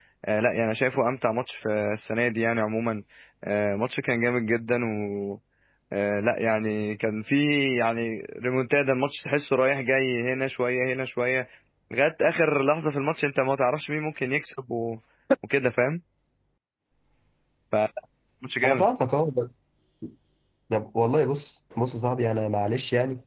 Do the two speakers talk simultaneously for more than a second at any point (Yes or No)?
No